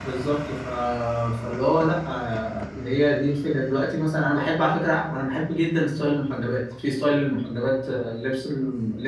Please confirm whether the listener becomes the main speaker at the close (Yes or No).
No